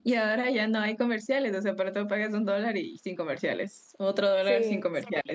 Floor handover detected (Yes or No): No